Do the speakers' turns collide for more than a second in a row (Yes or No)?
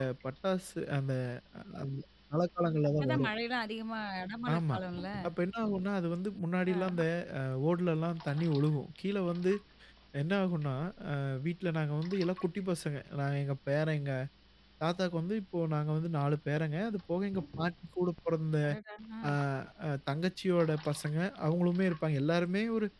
No